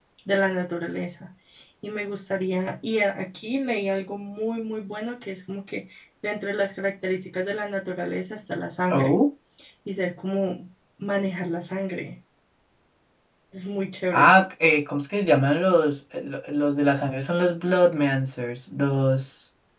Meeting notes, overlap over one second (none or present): none